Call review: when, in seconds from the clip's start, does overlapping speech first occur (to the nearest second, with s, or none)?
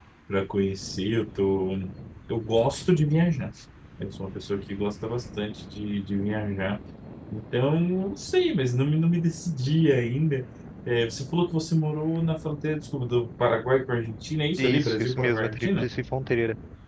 15 s